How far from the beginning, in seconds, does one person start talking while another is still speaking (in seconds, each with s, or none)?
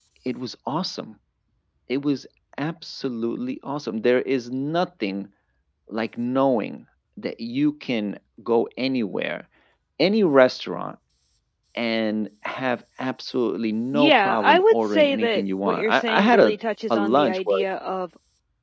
13.9 s